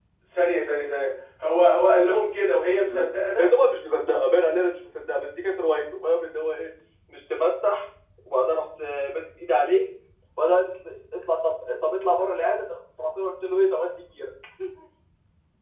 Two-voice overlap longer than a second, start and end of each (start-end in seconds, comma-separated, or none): none